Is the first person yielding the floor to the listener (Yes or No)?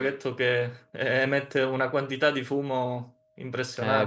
Yes